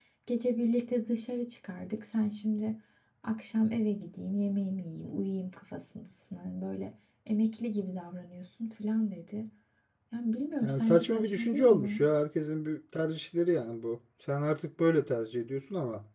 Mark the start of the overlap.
10.6 s

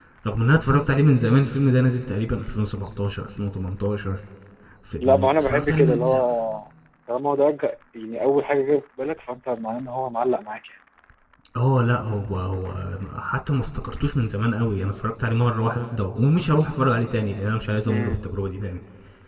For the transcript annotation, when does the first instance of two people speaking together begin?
5.0 s

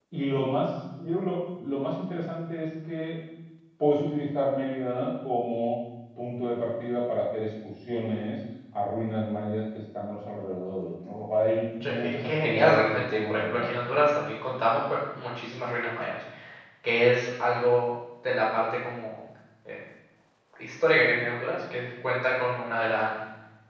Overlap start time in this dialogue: 11.8 s

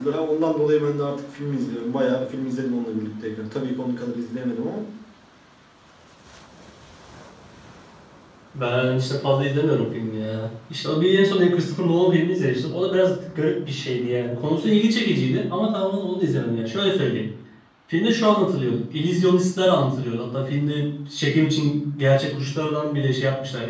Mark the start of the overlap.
none

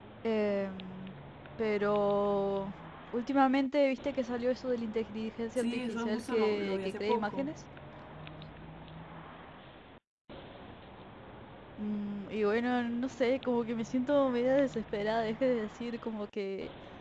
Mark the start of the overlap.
5.6 s

